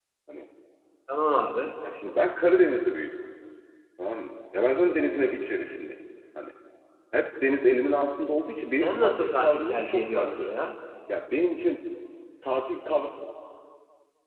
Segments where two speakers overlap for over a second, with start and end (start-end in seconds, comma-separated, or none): 8.7-10.5